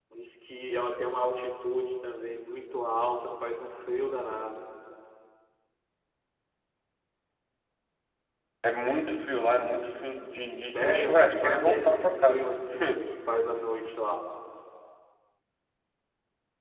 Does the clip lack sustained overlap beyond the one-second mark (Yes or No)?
No